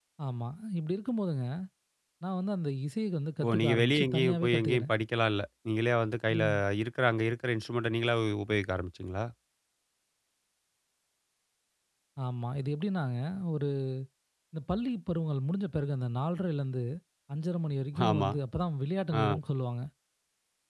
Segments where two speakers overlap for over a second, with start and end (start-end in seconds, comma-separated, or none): 3.5-4.9